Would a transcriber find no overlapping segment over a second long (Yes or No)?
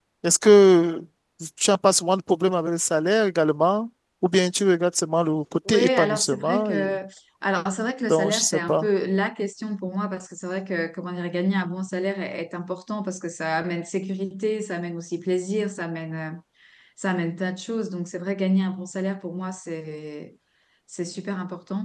No